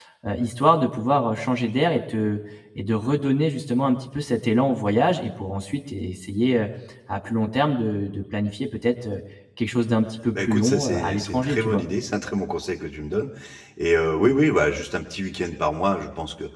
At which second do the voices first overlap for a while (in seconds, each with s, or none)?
10.3 s